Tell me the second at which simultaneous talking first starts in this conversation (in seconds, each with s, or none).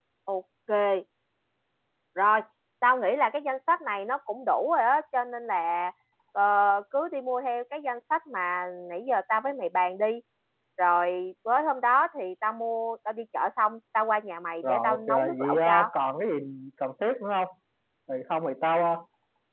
14.6 s